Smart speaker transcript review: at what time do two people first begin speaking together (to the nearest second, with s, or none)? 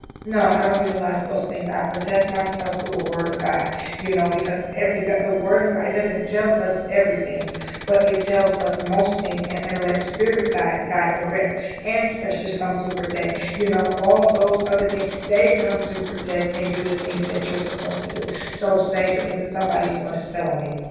none